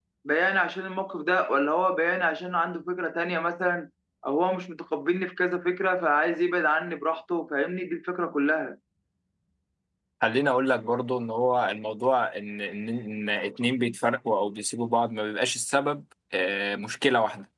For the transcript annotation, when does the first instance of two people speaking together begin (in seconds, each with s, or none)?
none